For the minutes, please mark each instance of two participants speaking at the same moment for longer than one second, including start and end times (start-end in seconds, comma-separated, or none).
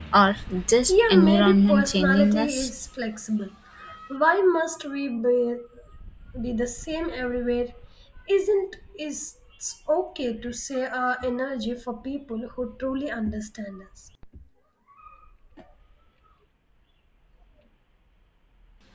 0.9-2.7